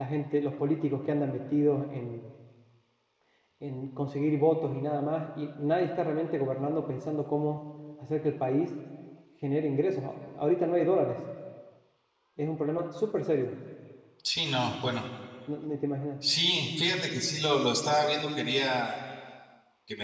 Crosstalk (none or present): none